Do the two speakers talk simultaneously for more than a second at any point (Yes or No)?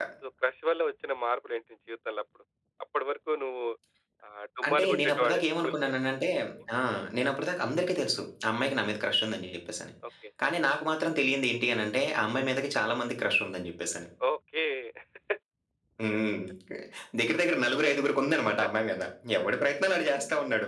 Yes